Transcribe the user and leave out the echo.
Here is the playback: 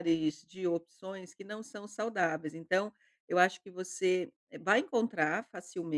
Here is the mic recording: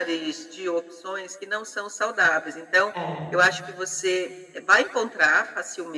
É.

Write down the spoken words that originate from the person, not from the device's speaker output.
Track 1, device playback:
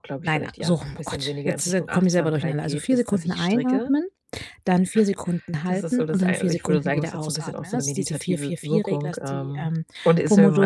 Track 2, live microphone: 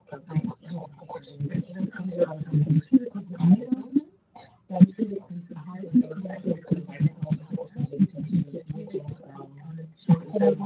none

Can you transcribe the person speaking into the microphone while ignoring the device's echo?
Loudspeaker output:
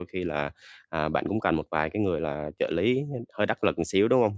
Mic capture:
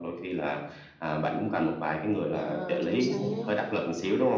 Yeah, chính xác.

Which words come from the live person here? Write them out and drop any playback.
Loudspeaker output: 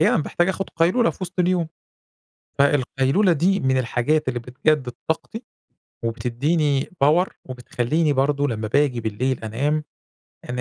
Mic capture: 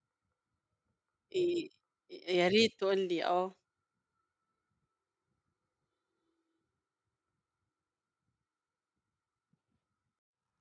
إي يا ريت تقول لي آه.

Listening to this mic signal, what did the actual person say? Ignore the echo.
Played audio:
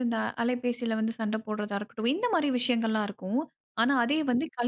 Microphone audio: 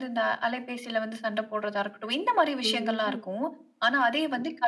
ம்ஹ்ம்.

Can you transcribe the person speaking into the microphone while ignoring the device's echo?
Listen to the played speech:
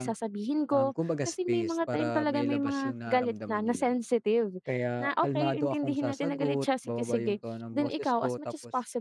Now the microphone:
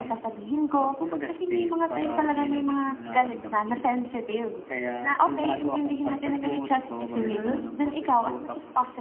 Mhm.

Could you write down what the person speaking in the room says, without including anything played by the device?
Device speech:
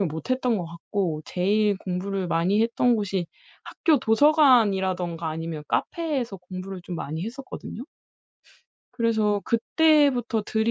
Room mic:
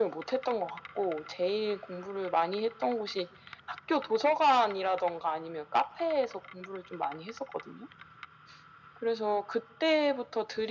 none

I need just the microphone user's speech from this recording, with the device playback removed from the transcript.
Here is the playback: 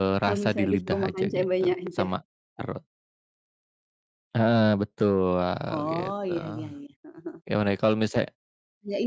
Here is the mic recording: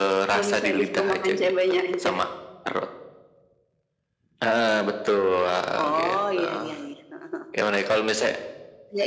none

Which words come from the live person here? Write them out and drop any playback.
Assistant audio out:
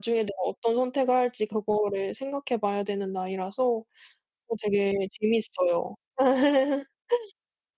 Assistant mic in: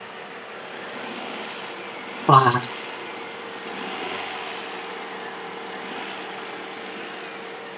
와.

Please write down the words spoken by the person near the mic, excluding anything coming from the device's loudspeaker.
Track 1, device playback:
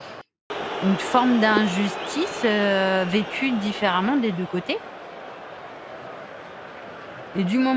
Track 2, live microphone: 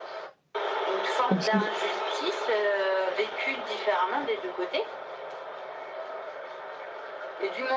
Aussi.

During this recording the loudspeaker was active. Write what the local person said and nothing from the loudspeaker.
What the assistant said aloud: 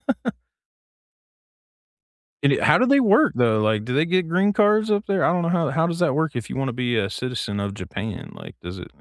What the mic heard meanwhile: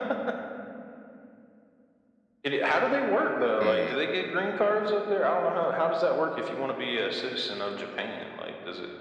Mhm

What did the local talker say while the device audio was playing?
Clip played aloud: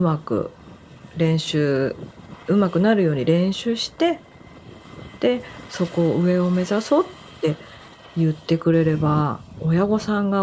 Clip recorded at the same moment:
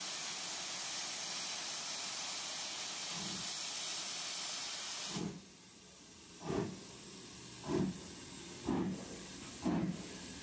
none

